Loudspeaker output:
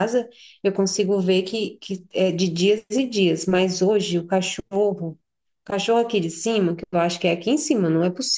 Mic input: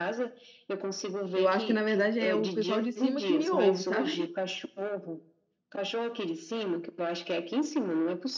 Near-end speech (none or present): present